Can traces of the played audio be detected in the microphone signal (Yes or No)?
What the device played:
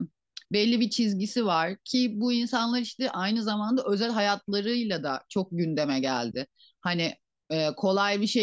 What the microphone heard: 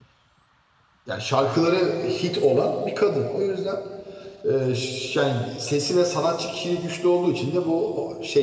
No